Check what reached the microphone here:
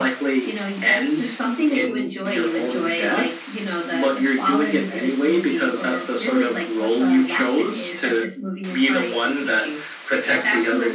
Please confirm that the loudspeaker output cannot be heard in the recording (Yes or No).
No